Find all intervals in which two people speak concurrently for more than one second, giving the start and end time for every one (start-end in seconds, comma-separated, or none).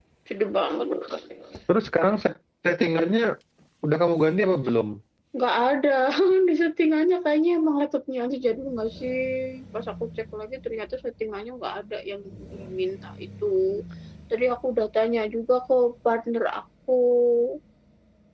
none